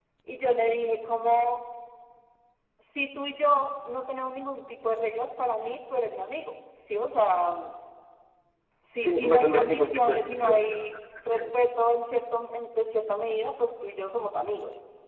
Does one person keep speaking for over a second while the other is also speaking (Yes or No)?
Yes